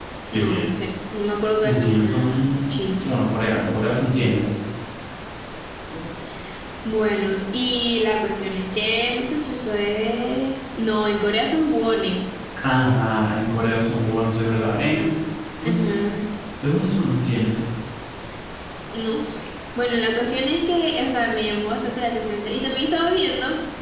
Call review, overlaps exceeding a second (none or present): present